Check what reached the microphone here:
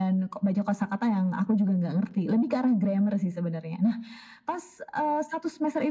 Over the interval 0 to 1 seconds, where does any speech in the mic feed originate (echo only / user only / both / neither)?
echo only